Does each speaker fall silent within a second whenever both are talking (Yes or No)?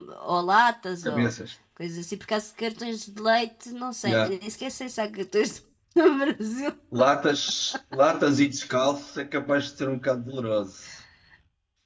Yes